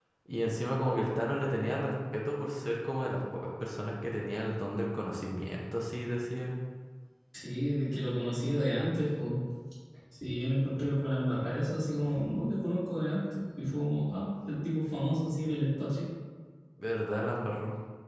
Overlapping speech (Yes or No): No